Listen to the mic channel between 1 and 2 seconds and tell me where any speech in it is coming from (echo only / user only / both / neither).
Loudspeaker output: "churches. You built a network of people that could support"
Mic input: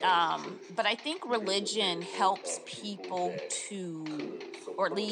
both